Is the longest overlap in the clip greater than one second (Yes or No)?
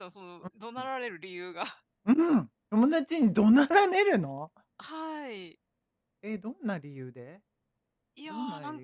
No